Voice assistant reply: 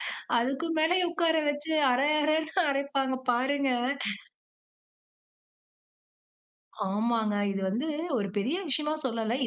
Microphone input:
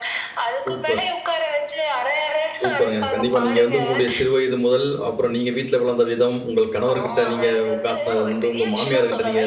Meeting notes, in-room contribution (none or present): present